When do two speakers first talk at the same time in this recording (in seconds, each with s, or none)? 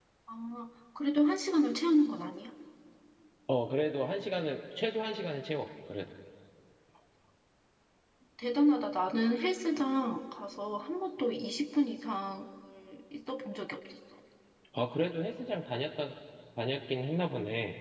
none